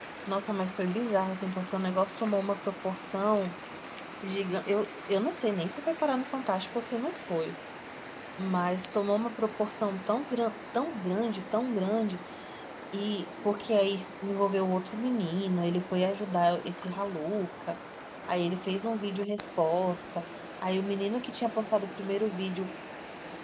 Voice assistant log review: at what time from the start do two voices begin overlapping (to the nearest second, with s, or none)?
none